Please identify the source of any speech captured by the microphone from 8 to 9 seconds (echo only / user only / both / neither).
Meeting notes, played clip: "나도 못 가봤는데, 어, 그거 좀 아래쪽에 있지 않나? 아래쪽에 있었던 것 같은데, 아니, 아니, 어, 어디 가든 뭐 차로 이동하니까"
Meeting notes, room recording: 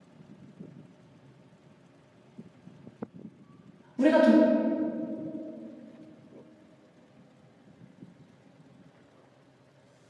neither